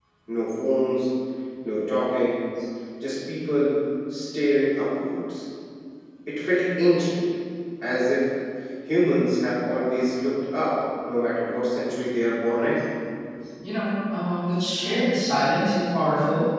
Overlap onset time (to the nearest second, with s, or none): none